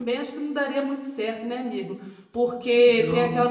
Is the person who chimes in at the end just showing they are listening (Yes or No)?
Yes